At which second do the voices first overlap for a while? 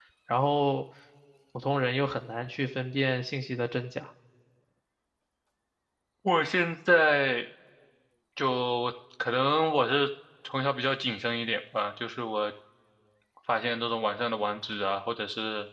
none

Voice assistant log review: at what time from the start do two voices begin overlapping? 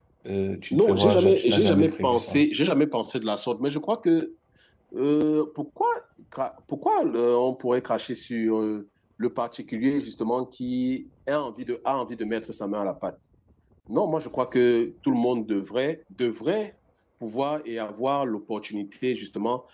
0.7 s

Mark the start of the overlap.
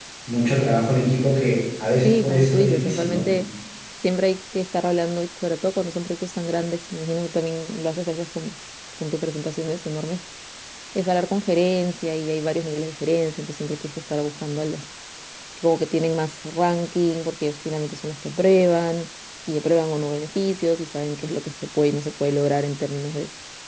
2.0 s

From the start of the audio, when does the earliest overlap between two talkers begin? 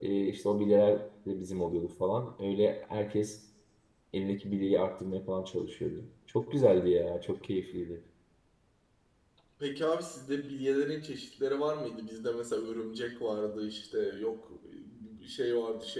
none

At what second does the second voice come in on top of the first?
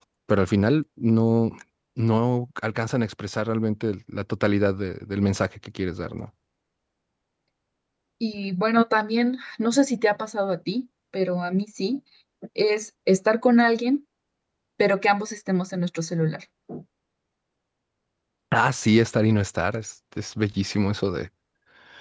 none

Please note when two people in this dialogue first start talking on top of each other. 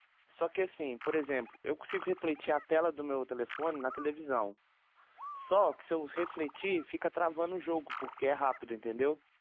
none

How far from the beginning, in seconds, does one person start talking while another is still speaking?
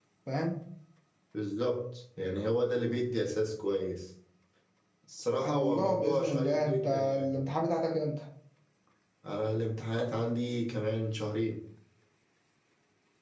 5.4 s

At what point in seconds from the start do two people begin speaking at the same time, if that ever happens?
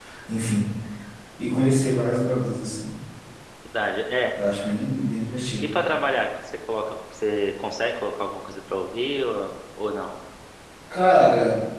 none

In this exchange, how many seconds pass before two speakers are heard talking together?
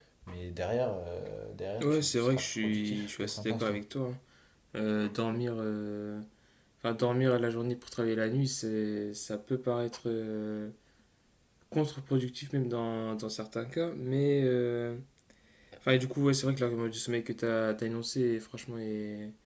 1.8 s

